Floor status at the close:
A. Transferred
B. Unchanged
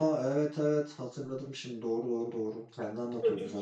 A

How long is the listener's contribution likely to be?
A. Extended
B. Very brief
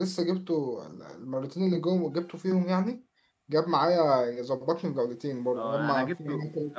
A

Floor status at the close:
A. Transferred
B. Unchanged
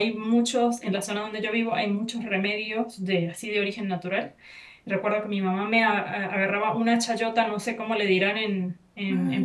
A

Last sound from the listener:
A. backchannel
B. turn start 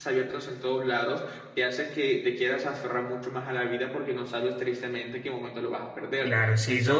B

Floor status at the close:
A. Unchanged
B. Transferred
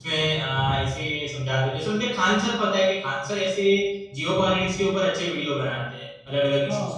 B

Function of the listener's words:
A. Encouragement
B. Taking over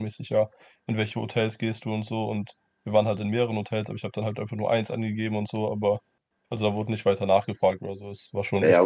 B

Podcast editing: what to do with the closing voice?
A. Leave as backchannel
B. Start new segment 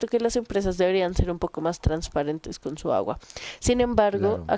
A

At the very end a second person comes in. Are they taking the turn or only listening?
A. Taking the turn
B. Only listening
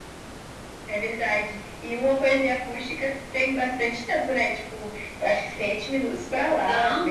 A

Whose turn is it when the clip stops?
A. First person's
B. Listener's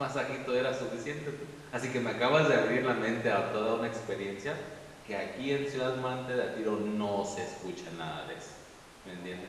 B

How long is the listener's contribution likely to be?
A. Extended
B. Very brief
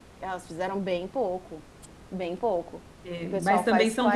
A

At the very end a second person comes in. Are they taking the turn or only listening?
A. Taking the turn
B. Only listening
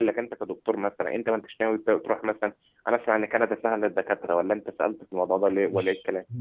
A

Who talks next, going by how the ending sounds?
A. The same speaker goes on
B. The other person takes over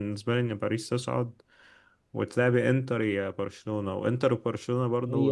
A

